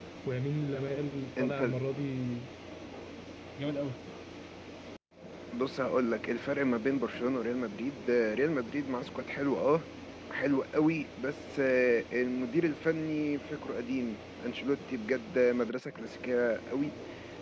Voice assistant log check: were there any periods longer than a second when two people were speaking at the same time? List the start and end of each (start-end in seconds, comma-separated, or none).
none